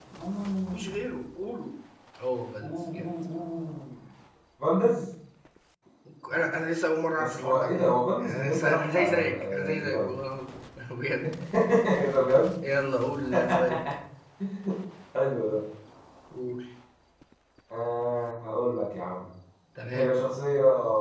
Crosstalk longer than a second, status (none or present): present